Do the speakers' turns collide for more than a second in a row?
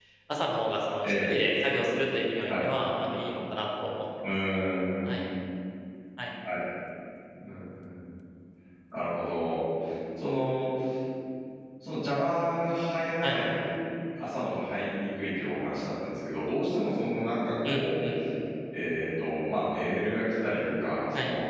No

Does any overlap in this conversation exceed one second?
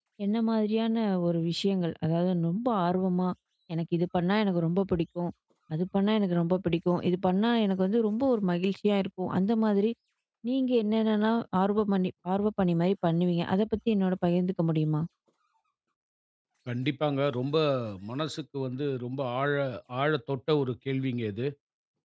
No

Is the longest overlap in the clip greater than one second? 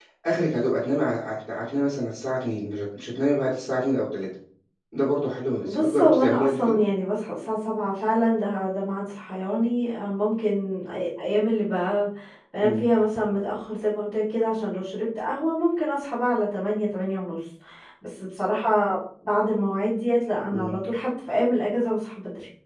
Yes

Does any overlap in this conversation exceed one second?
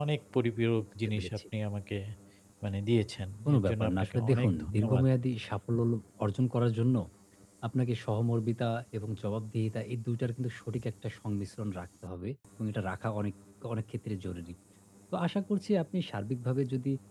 Yes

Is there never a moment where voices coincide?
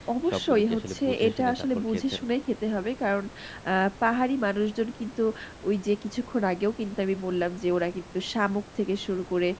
No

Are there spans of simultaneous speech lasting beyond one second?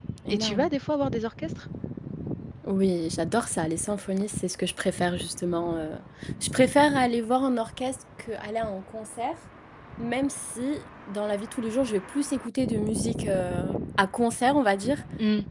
No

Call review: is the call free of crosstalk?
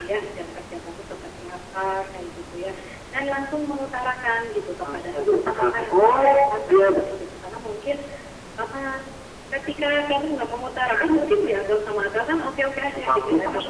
No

